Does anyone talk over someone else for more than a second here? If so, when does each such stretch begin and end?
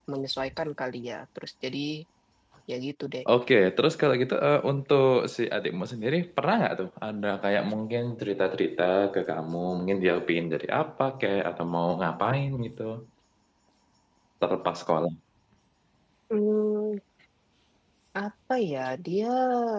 none

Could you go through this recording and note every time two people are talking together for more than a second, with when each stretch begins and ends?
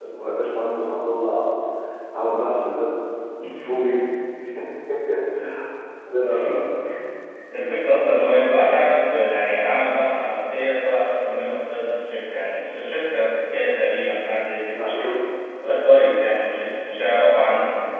none

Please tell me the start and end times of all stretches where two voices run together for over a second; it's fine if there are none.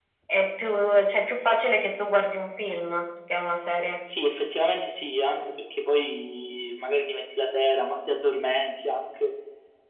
none

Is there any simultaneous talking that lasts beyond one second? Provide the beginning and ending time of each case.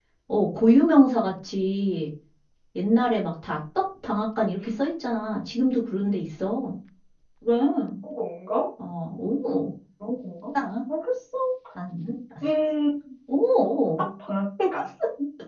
none

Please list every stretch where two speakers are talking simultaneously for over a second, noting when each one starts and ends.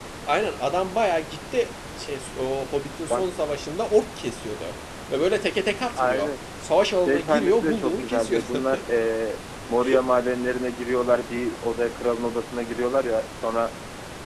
7.0-8.6

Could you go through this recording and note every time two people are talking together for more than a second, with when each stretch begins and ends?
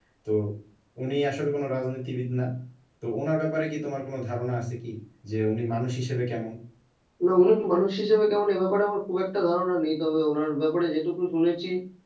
none

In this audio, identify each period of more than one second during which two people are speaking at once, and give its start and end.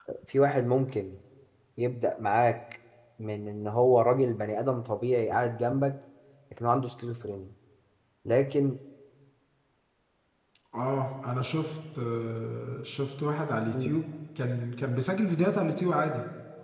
none

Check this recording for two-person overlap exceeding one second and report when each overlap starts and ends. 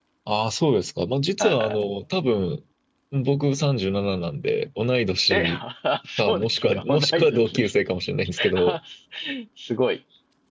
6.2-7.7

